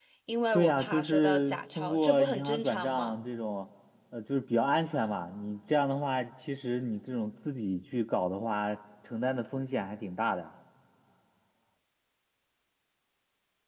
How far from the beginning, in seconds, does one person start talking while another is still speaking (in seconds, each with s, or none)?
0.5 s